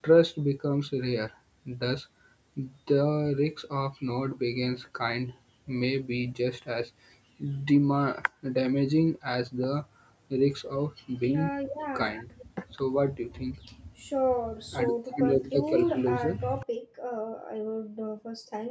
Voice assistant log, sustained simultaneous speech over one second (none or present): present